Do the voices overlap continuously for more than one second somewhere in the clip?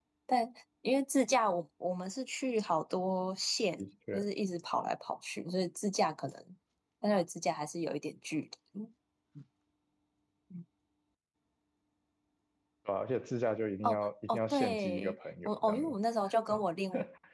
Yes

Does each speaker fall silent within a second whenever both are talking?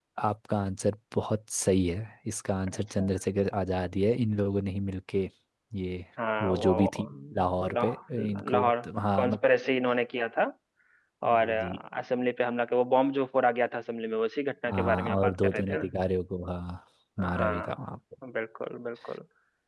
No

